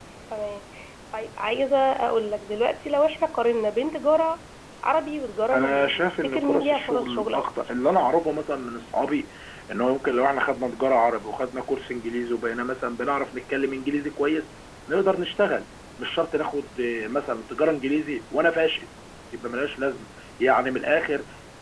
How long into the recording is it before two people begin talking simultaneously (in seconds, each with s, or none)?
5.5 s